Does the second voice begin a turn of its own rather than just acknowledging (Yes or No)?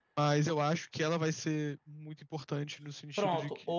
Yes